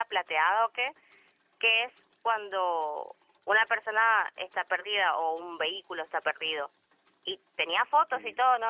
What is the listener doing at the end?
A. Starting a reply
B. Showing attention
B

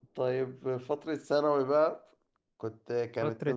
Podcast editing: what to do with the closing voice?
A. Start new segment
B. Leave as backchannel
A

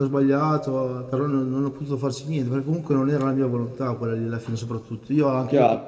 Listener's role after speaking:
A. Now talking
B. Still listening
A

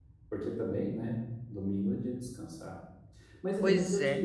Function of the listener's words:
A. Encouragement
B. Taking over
A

